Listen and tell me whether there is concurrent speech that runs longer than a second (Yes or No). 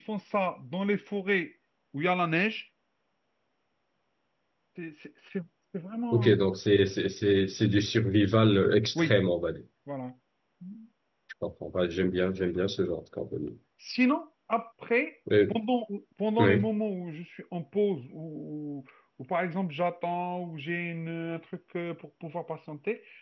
No